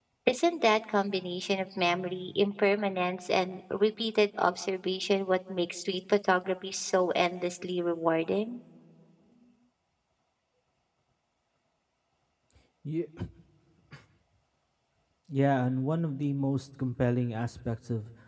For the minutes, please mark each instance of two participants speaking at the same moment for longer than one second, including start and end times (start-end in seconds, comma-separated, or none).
none